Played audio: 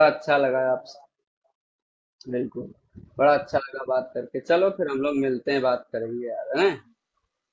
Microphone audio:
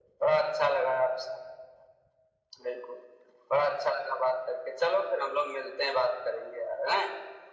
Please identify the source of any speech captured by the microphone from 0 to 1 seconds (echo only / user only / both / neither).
echo only